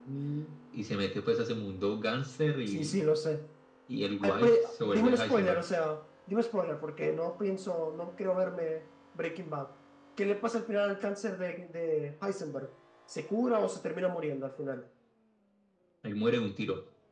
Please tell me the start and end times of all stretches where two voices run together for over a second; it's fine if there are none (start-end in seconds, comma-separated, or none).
4.2-5.6